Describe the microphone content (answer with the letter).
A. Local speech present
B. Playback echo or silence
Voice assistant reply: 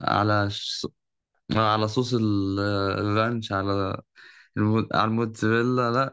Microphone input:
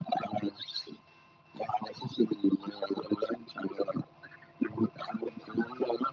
B